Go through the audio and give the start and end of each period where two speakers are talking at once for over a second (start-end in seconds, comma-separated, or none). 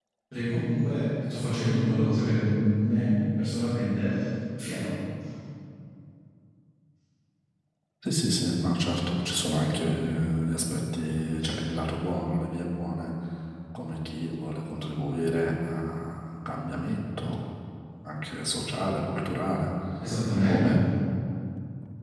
none